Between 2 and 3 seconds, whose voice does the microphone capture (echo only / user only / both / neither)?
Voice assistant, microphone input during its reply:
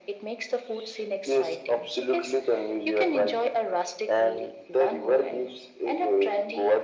echo only